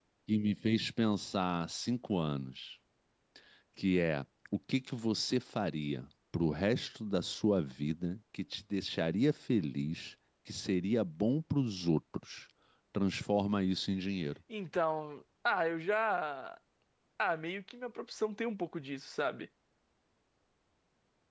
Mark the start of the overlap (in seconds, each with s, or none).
none